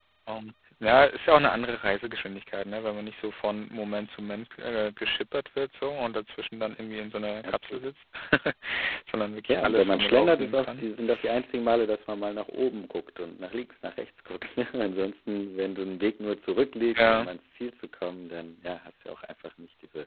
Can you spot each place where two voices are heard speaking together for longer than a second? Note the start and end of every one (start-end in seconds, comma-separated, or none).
9.5-10.8